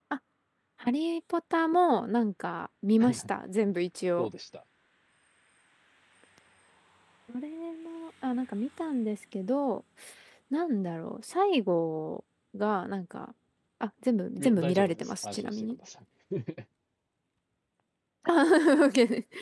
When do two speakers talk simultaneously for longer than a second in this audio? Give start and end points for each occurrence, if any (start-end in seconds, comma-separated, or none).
14.4-15.8